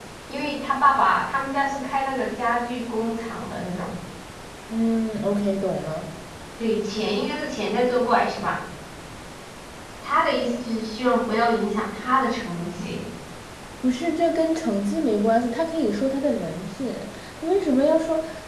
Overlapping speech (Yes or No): No